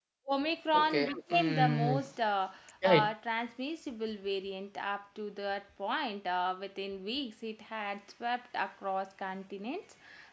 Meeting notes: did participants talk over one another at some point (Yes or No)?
Yes